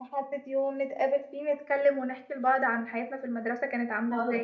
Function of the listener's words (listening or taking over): taking over